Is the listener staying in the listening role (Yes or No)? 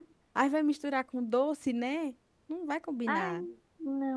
No